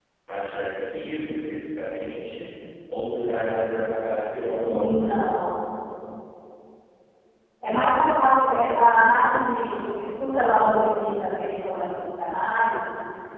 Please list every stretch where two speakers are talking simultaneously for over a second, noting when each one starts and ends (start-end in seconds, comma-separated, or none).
none